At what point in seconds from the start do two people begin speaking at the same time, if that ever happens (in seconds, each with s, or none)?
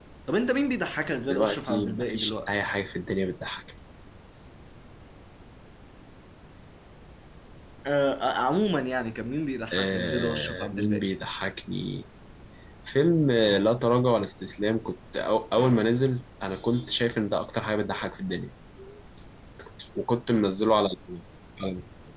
1.3 s